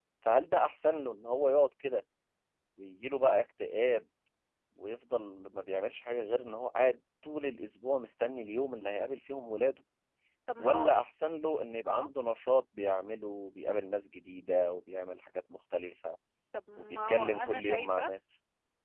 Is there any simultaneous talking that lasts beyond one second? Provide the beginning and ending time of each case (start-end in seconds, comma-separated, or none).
16.8-18.1